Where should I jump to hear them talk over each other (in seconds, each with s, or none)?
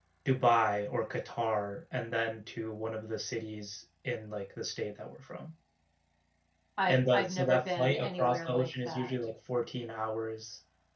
6.9 s